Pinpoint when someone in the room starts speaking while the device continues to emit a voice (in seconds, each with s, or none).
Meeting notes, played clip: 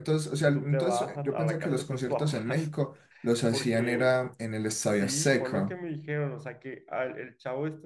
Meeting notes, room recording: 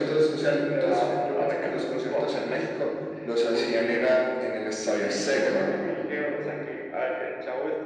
none